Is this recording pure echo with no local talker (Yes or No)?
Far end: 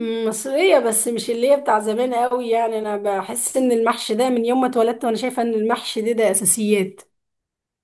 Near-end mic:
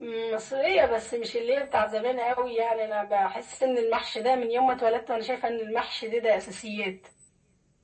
Yes